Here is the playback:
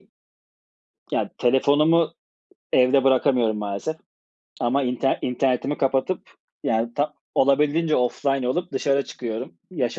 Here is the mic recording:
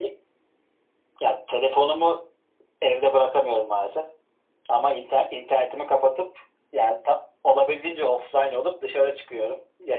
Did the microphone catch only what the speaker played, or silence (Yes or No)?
Yes